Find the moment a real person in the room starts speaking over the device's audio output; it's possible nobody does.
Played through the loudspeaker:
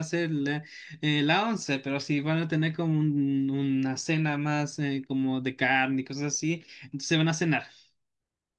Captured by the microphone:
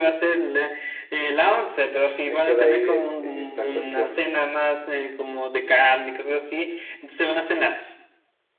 2.2 s

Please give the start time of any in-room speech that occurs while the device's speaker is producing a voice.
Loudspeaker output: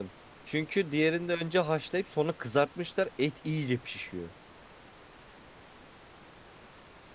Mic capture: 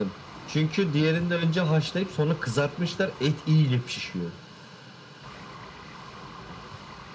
none

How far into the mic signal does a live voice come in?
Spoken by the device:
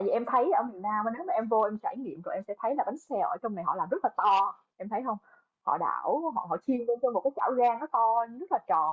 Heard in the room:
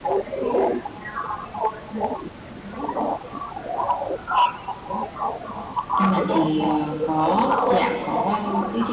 6.0 s

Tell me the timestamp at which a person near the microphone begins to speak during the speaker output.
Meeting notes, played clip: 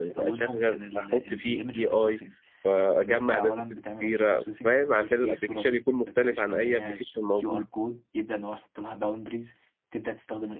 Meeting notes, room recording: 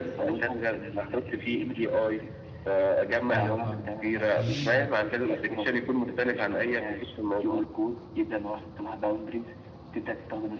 3.3 s

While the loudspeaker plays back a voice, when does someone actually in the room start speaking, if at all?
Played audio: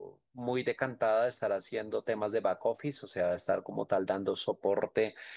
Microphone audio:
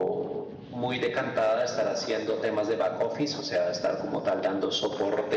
none

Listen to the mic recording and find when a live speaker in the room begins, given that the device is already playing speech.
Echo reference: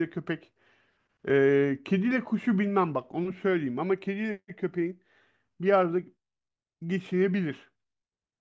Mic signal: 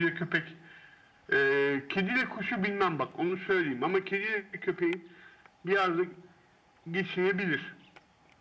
none

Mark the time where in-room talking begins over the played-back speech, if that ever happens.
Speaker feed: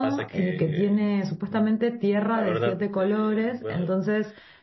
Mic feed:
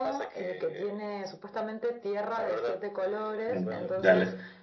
3.5 s

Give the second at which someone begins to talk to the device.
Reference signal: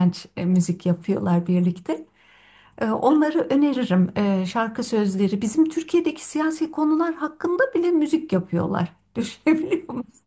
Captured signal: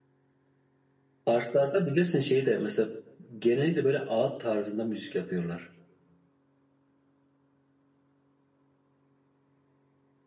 1.2 s

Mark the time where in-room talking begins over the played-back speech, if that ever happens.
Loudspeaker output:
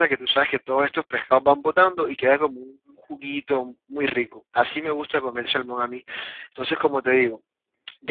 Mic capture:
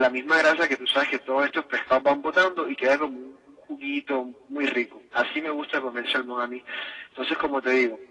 none

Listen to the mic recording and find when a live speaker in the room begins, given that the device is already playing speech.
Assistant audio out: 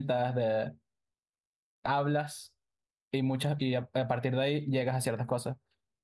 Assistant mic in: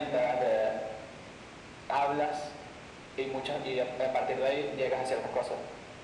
none

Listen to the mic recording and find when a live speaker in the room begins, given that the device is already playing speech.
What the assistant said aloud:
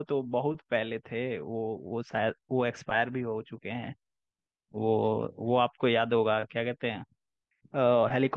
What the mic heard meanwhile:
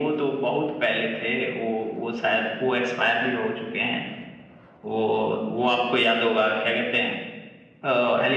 none

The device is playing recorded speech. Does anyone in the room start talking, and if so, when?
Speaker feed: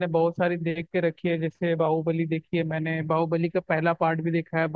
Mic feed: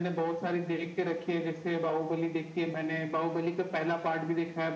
none

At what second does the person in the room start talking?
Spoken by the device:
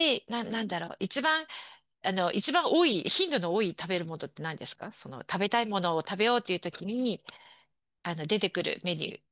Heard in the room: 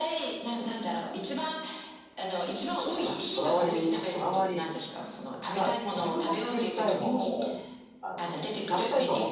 2.9 s

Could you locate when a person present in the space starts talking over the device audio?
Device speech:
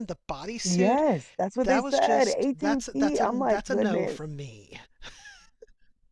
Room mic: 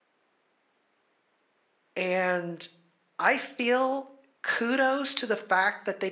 2.0 s

